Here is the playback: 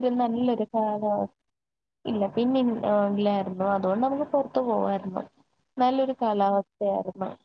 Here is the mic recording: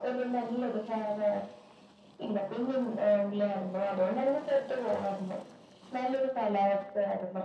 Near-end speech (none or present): none